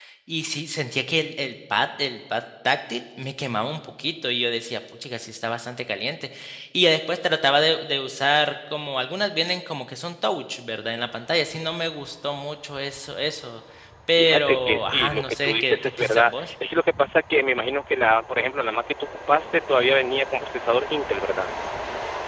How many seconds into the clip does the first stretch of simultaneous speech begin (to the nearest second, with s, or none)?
14 s